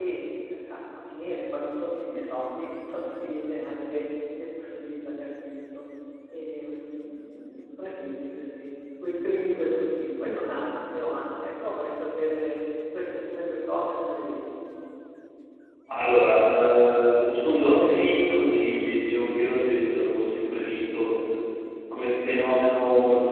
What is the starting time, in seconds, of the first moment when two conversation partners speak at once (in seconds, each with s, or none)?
none